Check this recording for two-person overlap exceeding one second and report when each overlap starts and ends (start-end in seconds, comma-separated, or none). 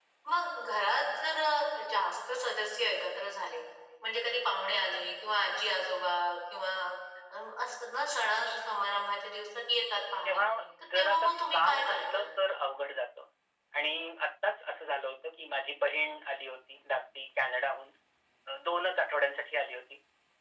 10.9-12.2